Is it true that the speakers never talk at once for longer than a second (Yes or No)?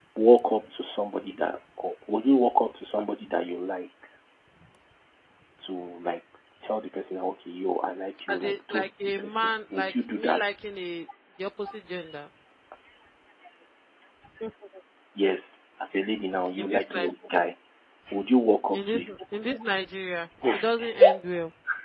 No